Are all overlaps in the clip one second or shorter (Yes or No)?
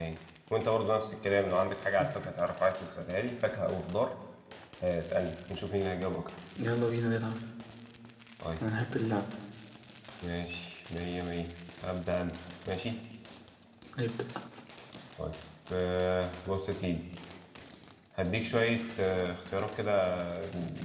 Yes